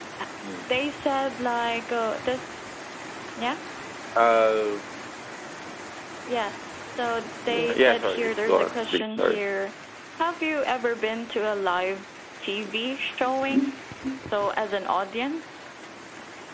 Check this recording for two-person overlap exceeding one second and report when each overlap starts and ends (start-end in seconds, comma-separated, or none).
7.5-9.4